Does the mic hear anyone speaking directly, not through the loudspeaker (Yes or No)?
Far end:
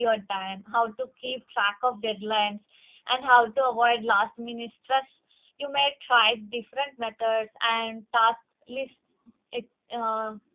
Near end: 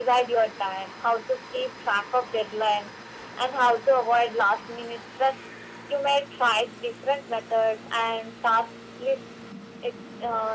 No